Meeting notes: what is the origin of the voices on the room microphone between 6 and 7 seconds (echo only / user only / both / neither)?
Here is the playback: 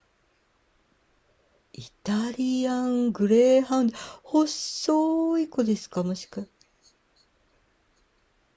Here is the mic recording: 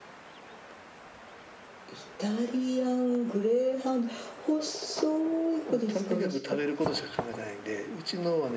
both